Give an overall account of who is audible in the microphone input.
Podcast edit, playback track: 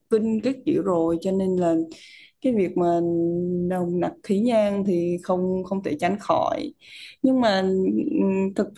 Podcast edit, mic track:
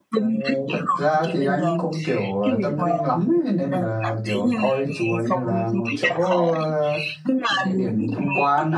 both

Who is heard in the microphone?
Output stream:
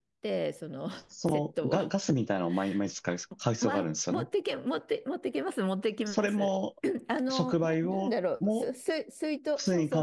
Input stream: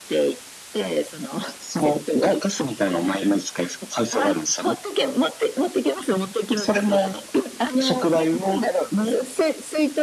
echo only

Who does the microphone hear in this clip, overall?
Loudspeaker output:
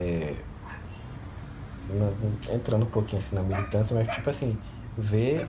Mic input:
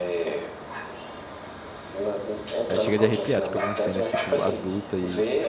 both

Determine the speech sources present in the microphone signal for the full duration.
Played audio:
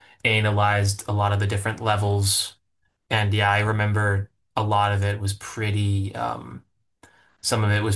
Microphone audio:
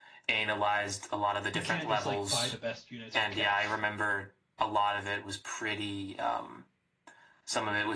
both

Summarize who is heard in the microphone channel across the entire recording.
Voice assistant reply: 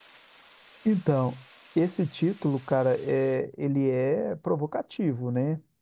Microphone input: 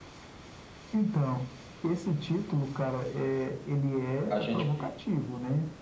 both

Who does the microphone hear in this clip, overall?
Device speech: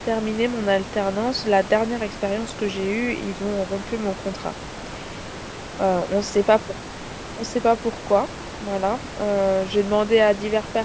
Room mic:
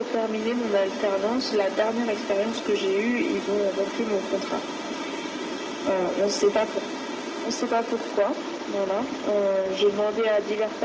echo only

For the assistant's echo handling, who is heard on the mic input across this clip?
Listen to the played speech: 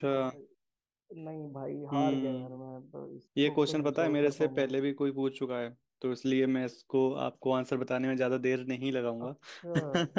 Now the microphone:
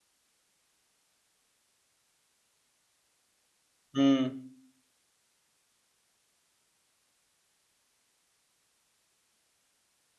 user only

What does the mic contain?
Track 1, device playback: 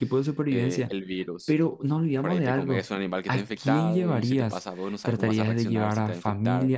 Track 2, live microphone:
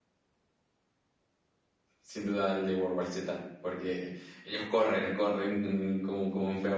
user only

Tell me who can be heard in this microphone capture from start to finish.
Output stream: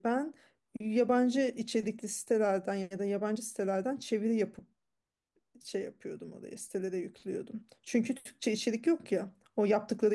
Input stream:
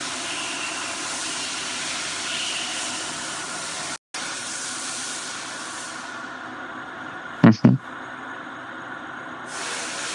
user only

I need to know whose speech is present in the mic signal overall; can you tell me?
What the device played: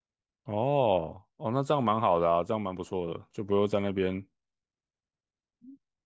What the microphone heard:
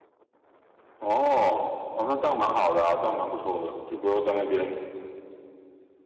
echo only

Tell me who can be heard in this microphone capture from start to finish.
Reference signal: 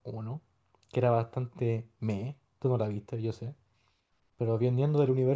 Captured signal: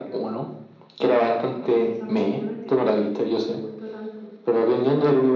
both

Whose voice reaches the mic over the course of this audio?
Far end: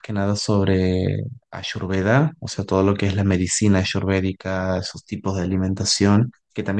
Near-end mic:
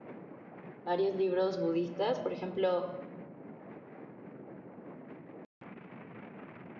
user only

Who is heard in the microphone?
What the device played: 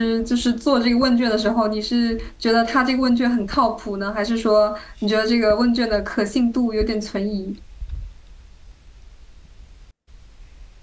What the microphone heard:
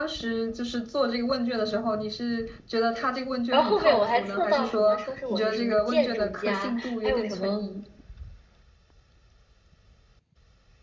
both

